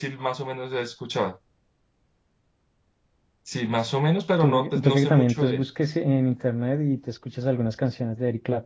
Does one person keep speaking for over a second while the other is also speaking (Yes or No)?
Yes